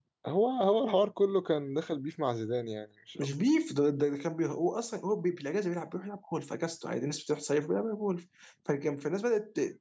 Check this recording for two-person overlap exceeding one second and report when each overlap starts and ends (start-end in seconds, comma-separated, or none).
none